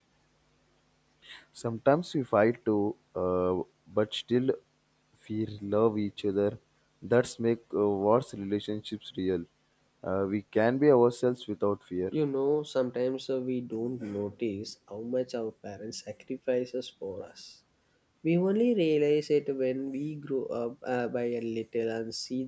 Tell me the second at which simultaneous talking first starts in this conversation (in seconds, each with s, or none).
none